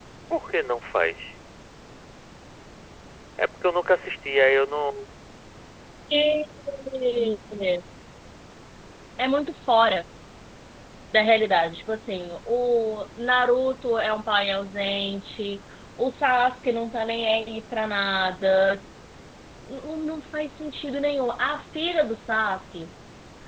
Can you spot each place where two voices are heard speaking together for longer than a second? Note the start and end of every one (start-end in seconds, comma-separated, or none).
none